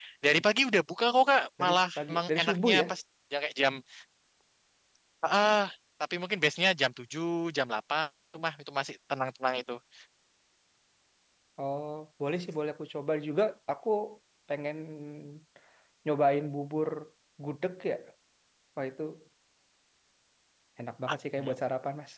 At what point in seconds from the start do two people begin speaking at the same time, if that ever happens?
1.6 s

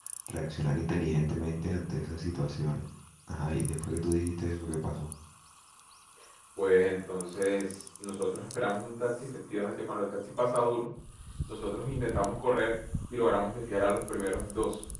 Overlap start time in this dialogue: none

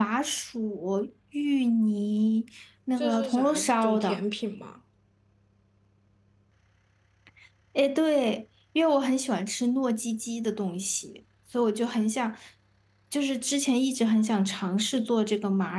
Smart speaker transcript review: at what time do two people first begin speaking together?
3.0 s

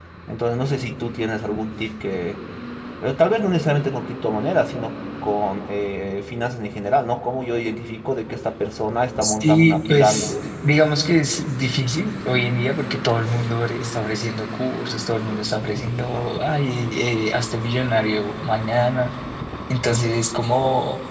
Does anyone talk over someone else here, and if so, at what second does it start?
9.2 s

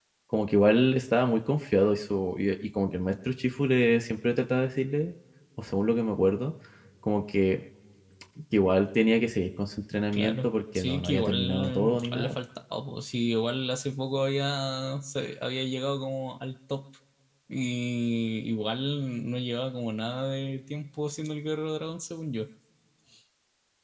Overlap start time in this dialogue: 10.1 s

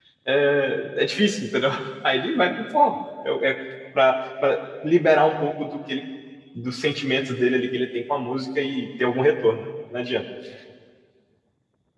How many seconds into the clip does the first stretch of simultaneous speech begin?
none

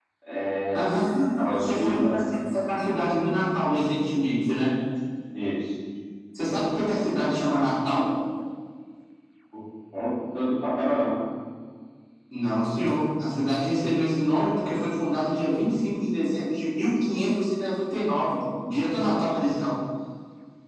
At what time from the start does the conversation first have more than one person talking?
0.7 s

